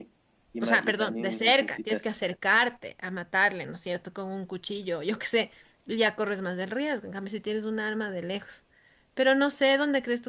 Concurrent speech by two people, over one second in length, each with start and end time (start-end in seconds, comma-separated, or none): 0.6-2.0